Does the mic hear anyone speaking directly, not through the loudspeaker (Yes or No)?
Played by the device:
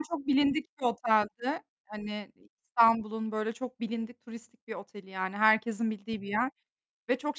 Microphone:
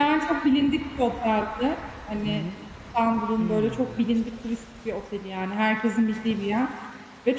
Yes